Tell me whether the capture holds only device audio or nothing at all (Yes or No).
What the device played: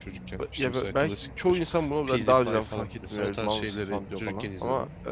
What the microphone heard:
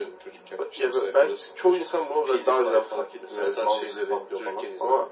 Yes